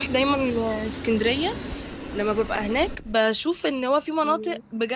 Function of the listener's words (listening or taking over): listening